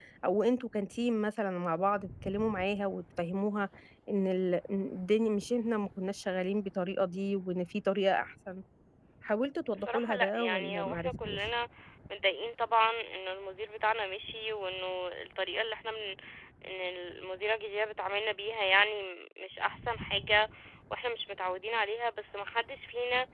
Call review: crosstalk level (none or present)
present